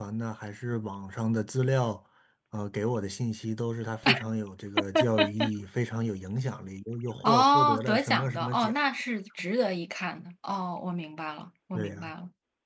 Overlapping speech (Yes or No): Yes